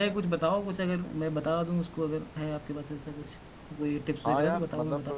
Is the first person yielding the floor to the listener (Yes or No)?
Yes